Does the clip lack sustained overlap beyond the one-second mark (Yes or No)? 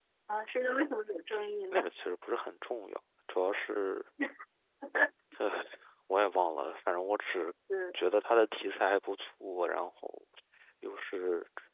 Yes